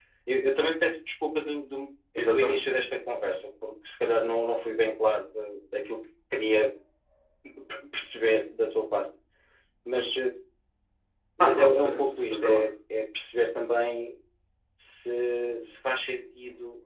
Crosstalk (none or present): present